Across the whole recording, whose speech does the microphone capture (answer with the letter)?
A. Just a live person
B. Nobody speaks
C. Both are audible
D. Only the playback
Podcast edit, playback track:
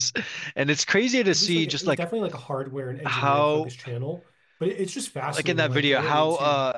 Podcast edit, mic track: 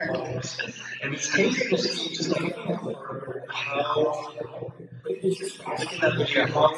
D